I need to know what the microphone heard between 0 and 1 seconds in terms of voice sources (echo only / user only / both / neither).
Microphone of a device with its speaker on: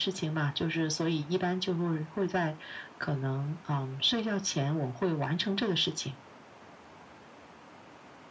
echo only